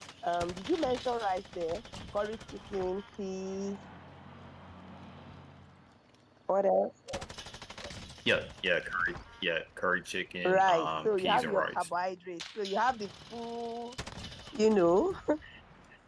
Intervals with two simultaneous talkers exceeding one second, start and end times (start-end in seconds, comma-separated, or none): 10.4-11.9